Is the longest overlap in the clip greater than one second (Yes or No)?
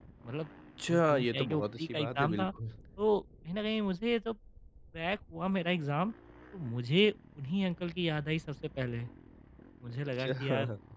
Yes